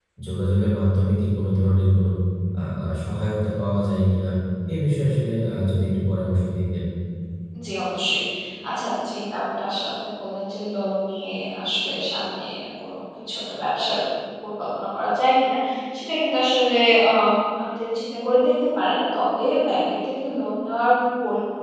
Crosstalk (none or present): none